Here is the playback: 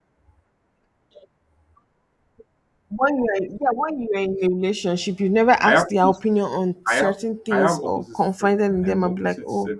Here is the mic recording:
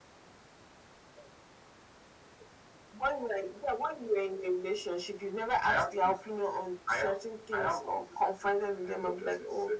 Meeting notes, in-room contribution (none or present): none